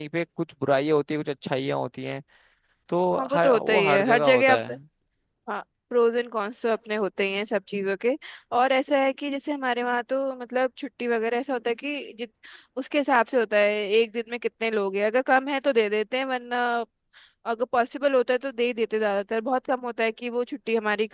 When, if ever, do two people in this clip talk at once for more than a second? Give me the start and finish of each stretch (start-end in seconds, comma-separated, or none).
3.2-4.6